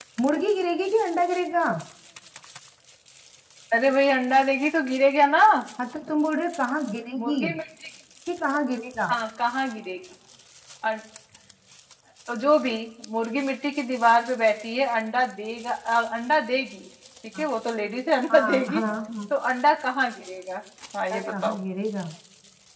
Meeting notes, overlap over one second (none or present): none